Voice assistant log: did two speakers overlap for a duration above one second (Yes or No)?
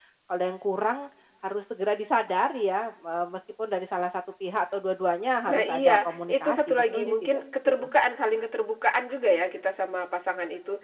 Yes